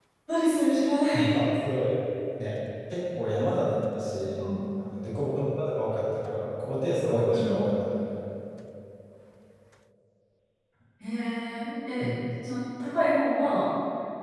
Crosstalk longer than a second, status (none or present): none